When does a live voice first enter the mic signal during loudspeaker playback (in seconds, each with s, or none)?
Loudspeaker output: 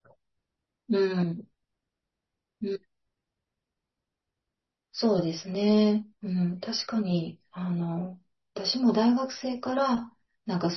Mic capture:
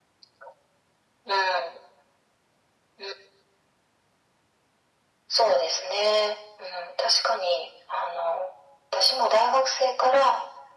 none